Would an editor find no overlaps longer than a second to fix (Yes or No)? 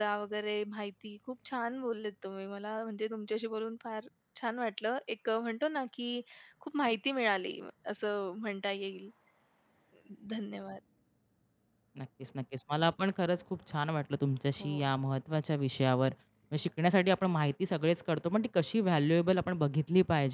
Yes